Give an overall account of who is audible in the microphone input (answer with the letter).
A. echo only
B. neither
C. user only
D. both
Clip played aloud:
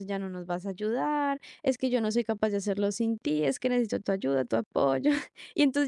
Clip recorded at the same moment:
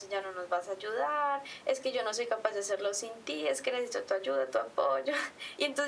A